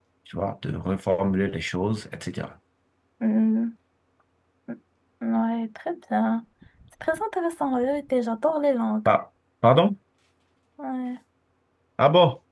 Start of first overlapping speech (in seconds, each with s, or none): none